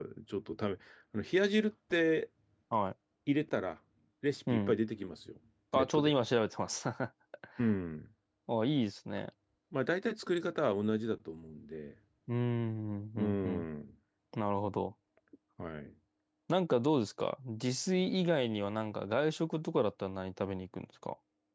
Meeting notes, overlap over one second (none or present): none